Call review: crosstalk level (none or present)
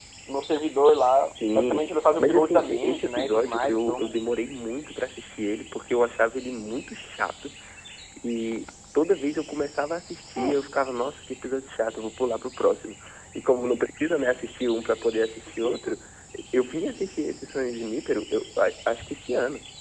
present